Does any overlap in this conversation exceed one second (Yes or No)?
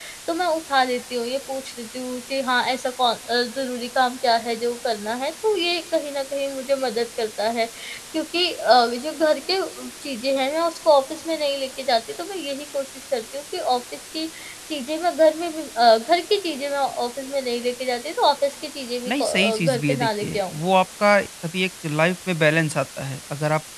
Yes